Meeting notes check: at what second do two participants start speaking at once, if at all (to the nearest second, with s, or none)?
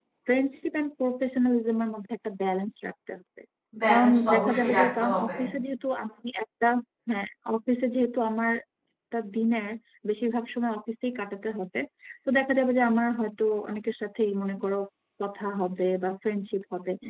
4 s